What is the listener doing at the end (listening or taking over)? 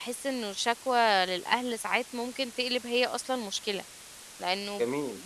listening